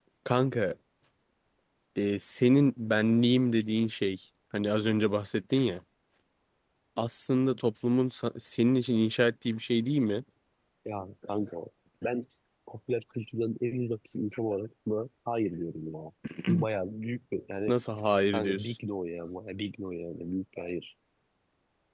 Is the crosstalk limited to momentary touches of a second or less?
Yes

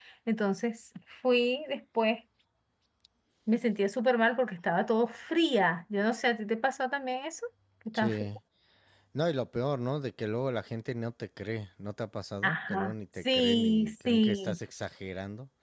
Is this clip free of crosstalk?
No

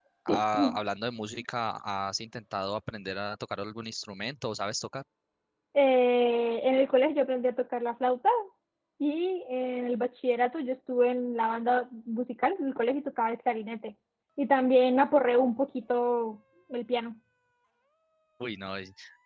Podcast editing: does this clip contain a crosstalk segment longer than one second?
No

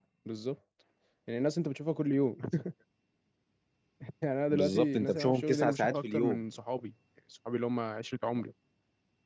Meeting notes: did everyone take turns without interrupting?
No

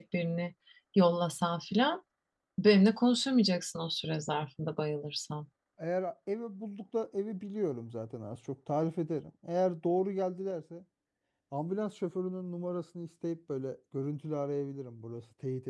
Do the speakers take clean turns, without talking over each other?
Yes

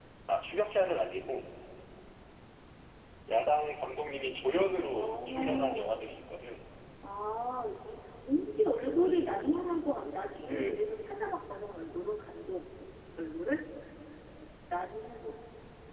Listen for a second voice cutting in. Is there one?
Yes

